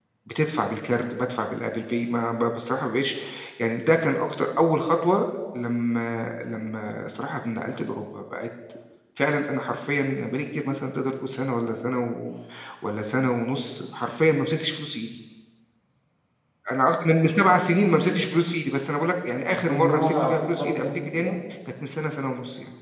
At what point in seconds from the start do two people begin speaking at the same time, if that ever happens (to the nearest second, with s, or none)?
19 s